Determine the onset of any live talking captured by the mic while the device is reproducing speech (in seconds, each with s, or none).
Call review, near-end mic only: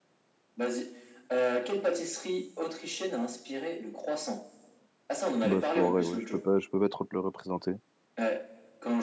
5.4 s